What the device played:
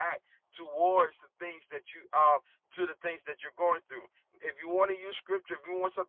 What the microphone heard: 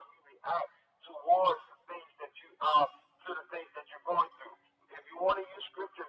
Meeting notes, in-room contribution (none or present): none